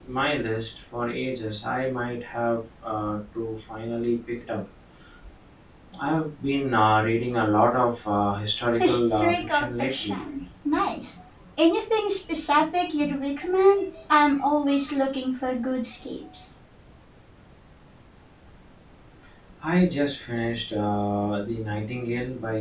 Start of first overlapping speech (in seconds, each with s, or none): 8.8 s